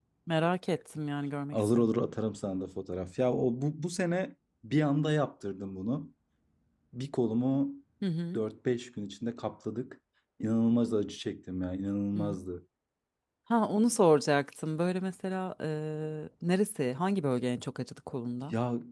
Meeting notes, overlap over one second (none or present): none